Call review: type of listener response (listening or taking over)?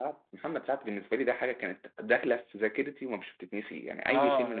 taking over